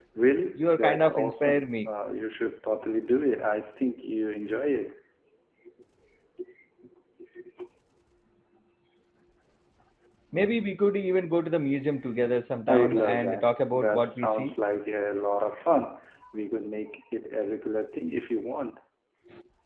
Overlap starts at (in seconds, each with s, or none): 0.6 s